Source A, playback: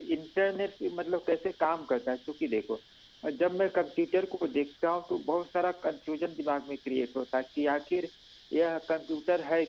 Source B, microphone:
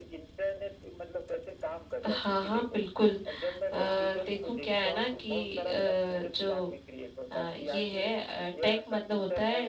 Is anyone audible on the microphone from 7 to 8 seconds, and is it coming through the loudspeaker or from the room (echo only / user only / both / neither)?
both